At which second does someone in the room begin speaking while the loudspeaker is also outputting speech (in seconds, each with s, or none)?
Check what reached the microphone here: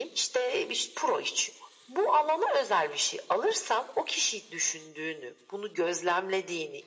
none